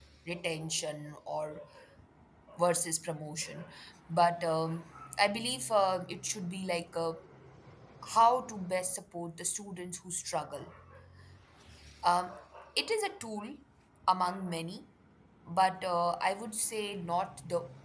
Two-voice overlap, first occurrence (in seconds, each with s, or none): none